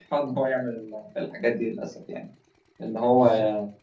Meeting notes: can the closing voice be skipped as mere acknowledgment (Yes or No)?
Yes